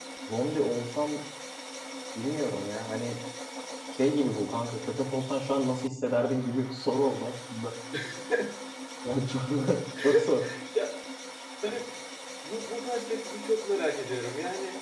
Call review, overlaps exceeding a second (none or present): none